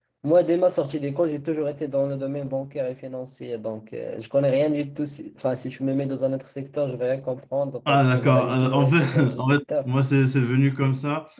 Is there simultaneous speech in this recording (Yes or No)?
Yes